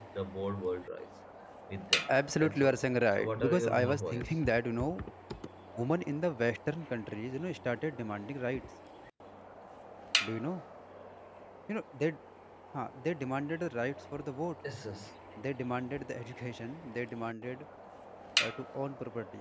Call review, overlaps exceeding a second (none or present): present